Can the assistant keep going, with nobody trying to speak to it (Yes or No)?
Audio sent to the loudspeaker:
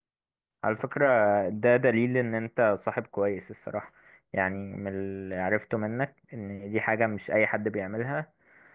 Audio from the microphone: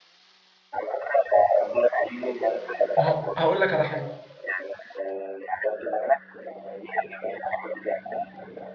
No